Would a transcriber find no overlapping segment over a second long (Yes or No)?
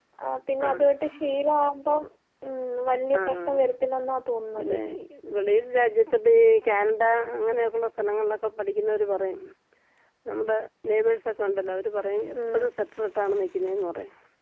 Yes